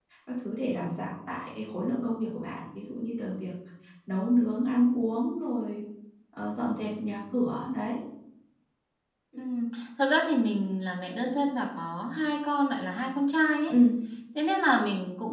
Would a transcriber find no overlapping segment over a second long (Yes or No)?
Yes